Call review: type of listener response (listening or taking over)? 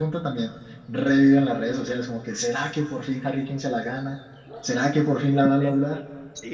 taking over